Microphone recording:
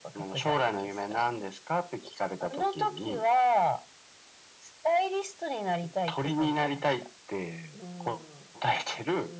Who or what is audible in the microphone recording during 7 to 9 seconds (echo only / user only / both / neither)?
both